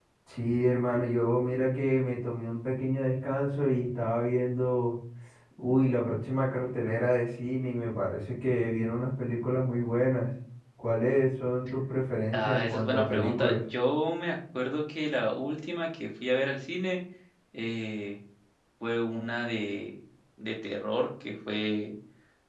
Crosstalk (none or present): present